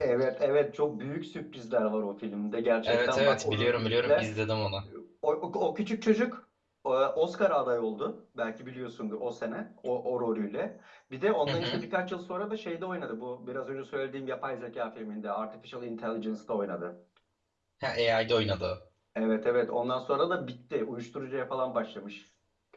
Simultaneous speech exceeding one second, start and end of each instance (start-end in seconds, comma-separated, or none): 2.8-4.3